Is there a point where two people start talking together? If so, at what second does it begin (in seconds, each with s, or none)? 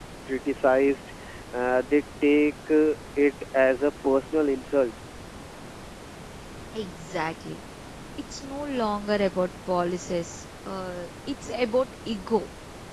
none